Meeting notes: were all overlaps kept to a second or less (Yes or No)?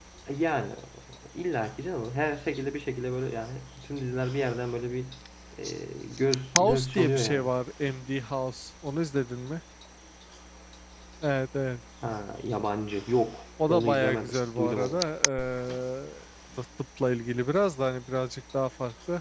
No